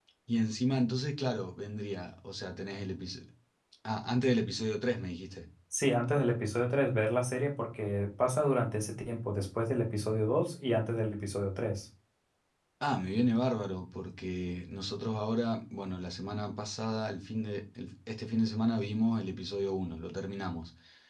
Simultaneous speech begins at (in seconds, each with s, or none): none